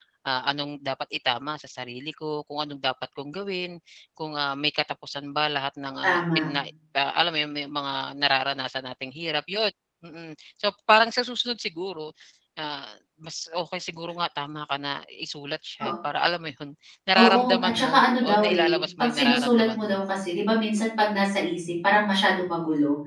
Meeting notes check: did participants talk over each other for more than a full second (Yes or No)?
Yes